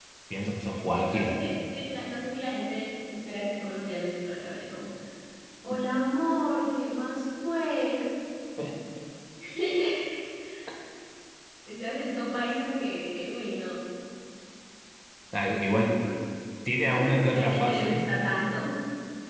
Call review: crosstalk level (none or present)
present